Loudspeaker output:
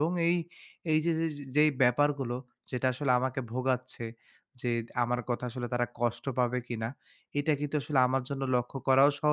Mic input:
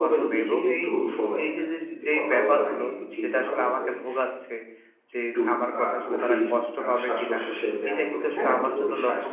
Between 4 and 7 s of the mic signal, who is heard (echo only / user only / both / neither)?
both